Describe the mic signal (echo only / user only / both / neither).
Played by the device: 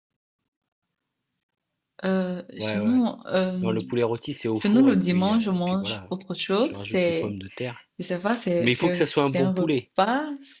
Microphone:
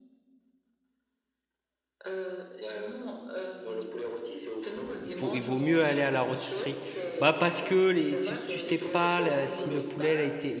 both